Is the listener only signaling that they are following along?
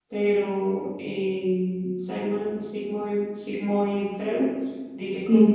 Yes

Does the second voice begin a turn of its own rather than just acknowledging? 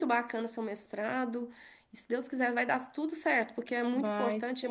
No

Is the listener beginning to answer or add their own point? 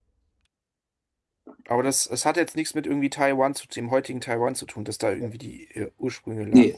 Yes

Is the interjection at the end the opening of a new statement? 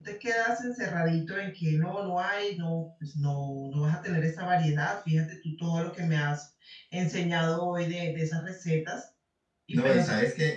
Yes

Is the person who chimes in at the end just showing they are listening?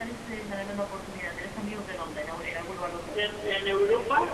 No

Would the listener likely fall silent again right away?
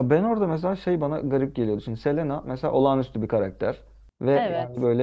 Yes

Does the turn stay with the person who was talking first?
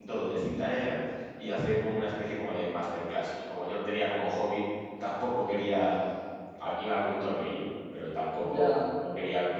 Yes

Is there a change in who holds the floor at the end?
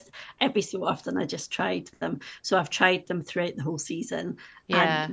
No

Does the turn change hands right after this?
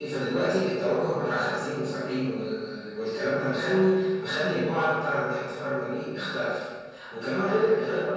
No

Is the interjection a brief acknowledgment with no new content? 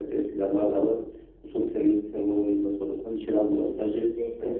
No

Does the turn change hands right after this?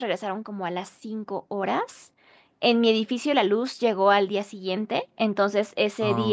No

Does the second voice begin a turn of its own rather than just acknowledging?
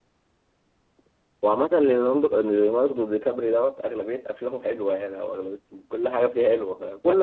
No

